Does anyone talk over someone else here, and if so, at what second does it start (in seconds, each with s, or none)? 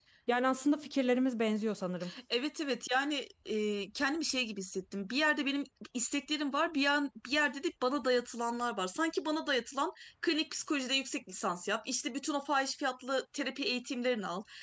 none